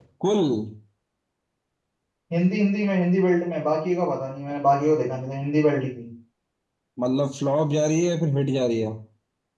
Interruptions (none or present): none